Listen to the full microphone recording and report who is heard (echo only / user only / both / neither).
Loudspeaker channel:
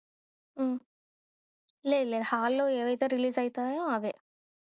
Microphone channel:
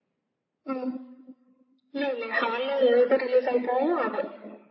echo only